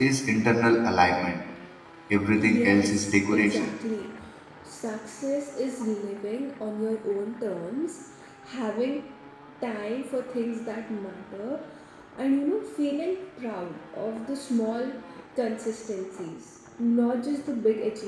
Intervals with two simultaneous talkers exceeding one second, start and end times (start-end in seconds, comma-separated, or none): 2.3-3.7